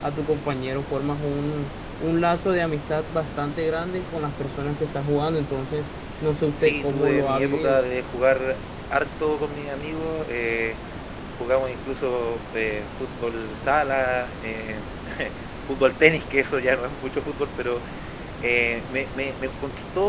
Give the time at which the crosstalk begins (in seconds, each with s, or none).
6.6 s